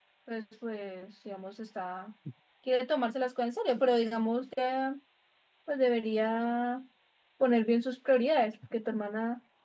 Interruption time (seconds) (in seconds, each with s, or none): none